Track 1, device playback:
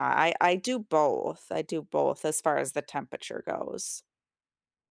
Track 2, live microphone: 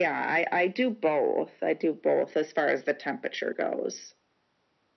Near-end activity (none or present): none